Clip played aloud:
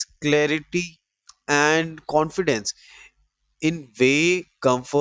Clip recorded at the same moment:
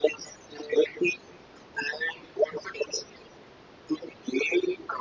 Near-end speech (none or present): none